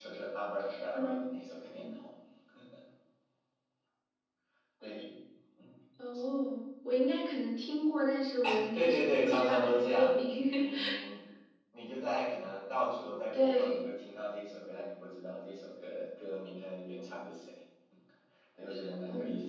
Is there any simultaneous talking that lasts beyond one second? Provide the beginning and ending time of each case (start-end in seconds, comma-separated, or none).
8.7-10.2